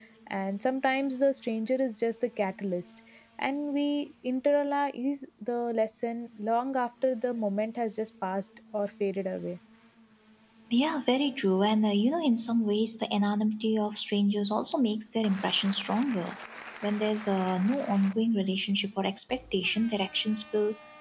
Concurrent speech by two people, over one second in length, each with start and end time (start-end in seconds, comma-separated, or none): none